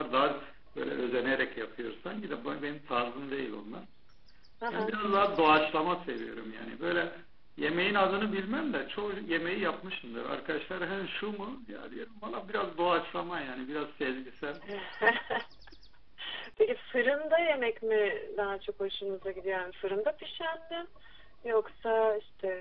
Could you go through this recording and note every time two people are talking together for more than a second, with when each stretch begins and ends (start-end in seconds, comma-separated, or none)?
none